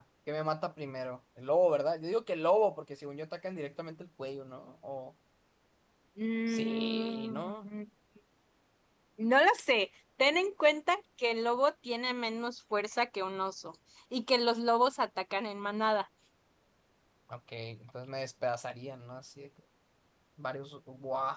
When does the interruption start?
6.5 s

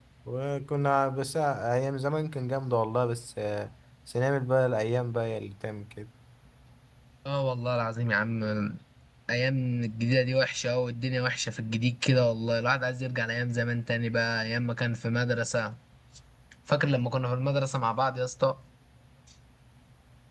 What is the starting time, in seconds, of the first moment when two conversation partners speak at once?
none

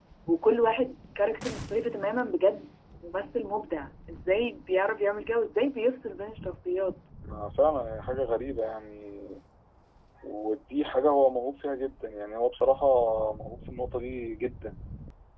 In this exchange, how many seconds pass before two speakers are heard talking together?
none

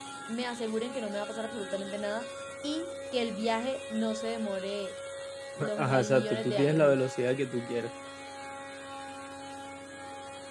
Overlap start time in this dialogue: 5.8 s

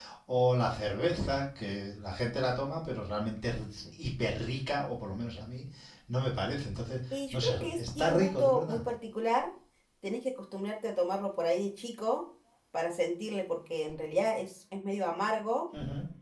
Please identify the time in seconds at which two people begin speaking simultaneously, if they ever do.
7.1 s

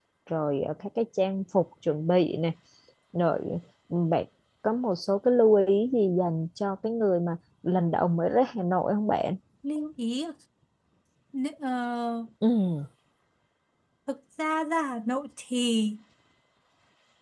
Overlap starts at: none

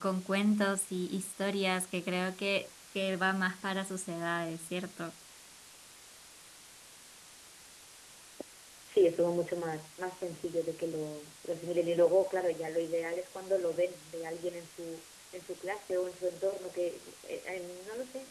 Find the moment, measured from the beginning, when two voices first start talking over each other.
none

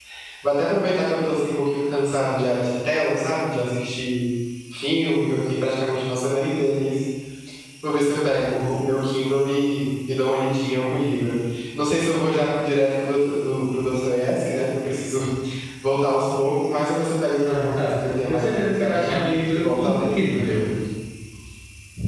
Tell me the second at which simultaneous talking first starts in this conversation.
17.4 s

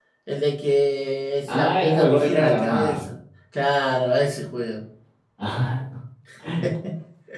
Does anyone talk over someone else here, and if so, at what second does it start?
1.5 s

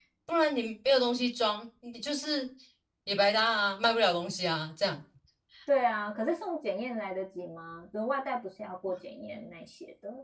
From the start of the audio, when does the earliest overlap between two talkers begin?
none

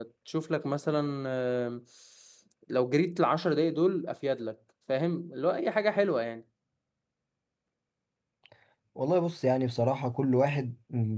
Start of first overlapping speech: none

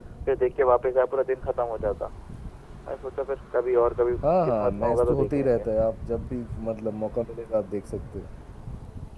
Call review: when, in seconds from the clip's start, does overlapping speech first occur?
4.2 s

